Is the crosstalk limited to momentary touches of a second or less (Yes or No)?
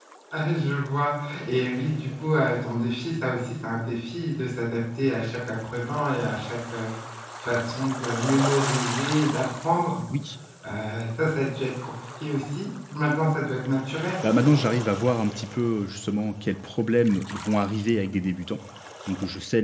Yes